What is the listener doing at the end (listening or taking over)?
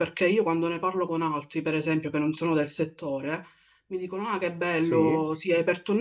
listening